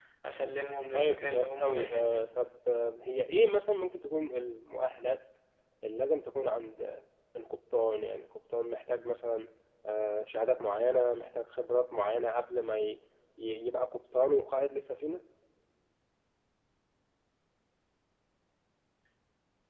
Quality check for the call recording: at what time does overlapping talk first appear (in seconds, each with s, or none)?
0.9 s